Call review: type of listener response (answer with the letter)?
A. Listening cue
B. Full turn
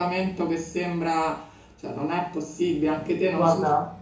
B